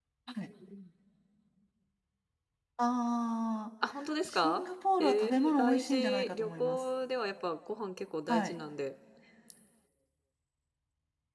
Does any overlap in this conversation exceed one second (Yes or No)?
Yes